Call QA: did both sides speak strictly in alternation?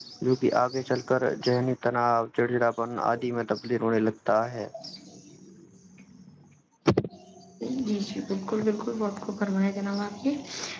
Yes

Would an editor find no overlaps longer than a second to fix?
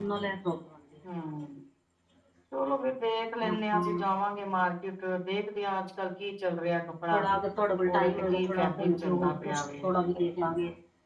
No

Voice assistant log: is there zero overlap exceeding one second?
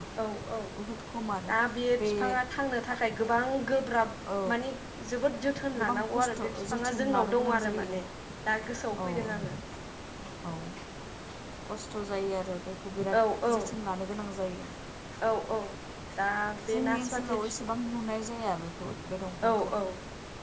No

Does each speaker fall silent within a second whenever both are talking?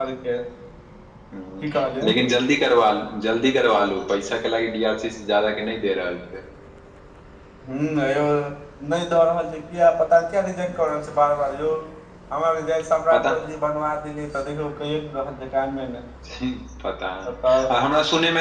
Yes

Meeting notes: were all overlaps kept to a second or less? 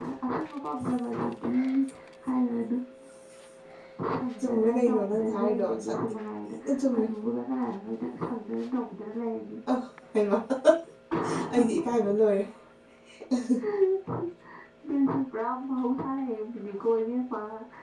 No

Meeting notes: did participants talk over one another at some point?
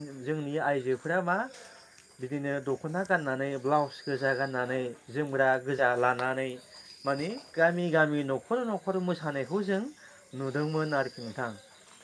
No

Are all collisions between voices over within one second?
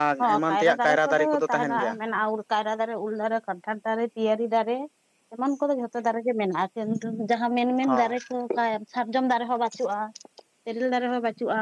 No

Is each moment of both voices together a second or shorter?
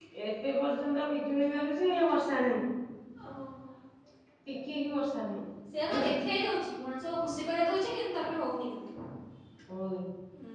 Yes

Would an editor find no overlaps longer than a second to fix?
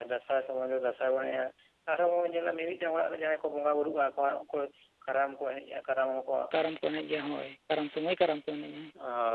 Yes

